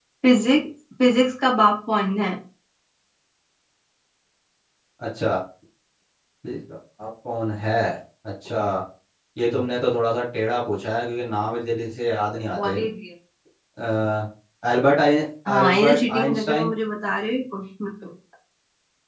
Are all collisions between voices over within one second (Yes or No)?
No